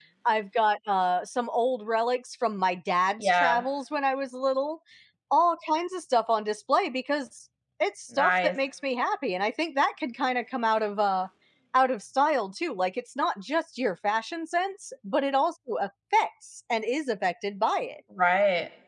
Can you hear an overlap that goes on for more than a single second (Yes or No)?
No